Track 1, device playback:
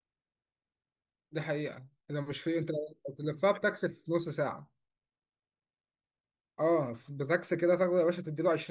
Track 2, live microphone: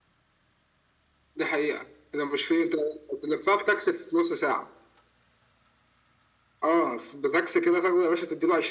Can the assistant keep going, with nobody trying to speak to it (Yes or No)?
Yes